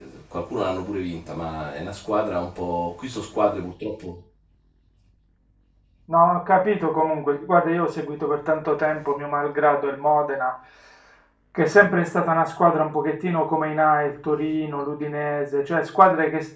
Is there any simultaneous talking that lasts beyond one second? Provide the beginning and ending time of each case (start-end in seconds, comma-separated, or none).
none